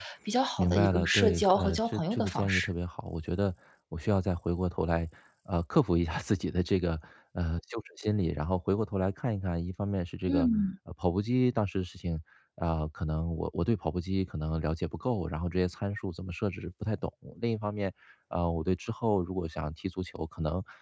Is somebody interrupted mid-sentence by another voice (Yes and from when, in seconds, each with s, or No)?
Yes, from 0.6 s